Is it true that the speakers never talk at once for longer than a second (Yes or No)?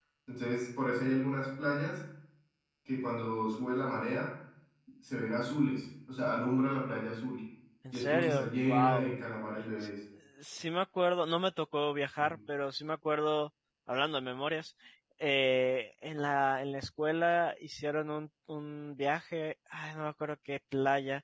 No